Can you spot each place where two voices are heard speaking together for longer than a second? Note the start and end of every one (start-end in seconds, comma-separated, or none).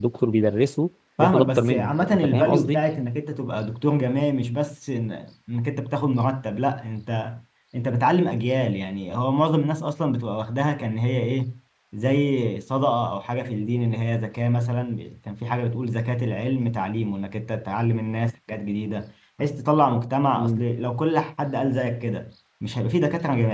1.2-2.8